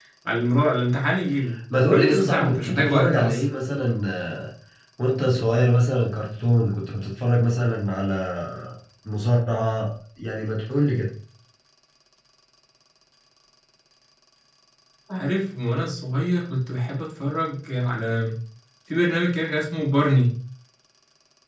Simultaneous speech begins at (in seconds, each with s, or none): 1.7 s